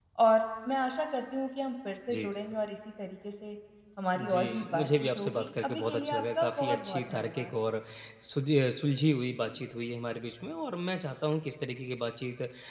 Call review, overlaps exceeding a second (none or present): present